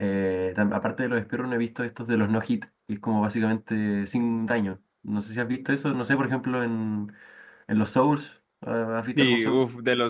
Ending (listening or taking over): taking over